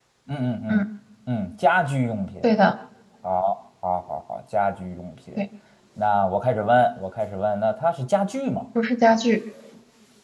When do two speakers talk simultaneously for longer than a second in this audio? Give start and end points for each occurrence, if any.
none

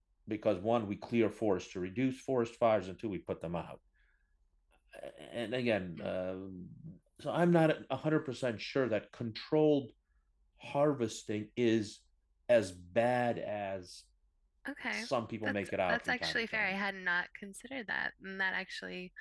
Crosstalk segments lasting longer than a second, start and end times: 15.4-16.7

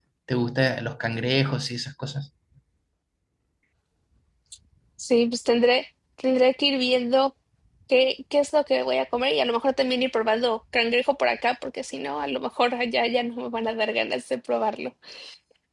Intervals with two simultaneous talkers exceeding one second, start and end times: none

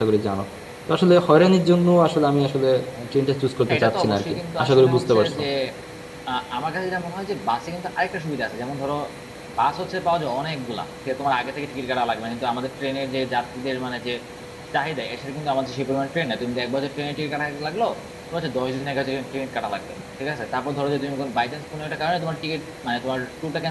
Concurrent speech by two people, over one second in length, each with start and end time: 3.7-5.4

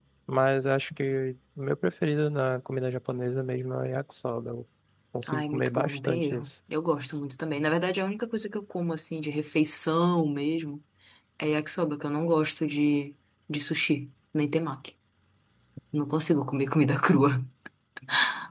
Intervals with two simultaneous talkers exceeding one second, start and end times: 5.3-6.5

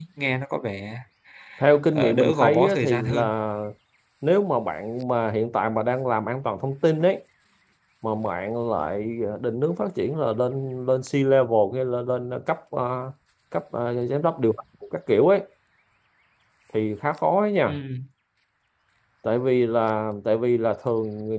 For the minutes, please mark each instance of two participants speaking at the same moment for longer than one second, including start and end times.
1.9-3.3

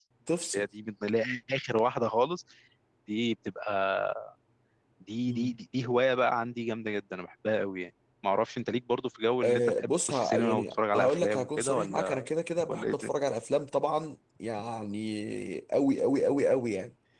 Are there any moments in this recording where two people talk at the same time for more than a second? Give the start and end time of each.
9.4-12.3

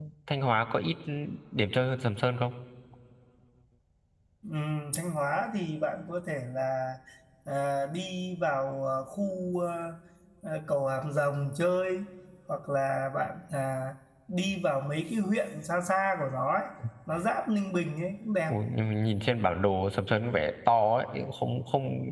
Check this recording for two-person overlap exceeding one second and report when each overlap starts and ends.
none

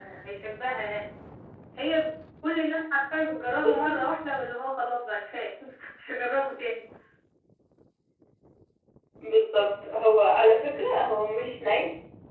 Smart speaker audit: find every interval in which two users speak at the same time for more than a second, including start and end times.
none

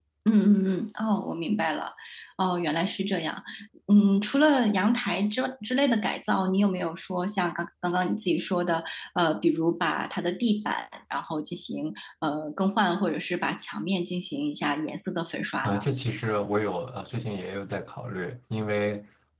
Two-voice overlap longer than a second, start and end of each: none

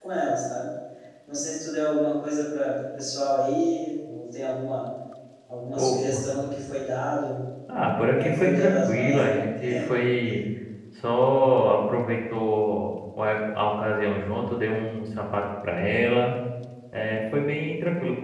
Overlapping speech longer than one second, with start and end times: 8.1-9.4

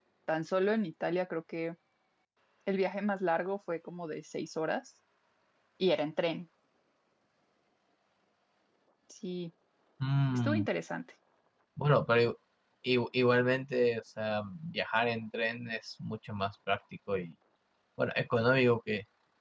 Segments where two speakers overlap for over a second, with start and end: none

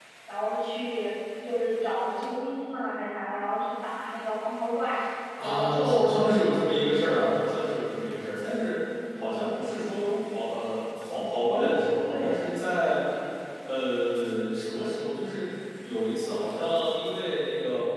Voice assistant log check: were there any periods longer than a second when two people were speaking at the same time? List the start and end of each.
5.4-6.7

